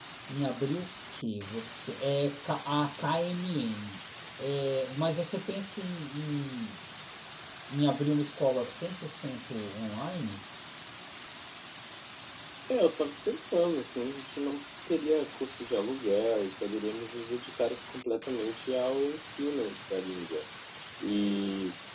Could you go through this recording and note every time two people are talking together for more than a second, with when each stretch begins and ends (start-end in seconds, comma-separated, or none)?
none